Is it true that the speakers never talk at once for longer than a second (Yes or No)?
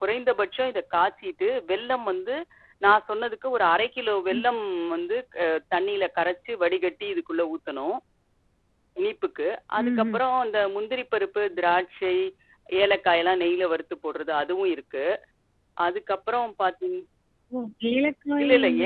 Yes